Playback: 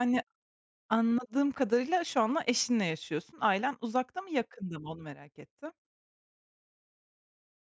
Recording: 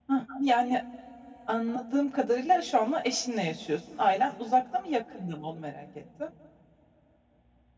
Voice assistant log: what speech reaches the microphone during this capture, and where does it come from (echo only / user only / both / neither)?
echo only